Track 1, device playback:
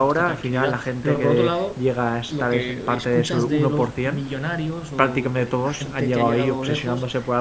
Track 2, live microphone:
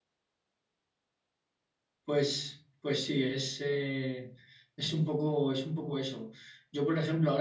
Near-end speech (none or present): present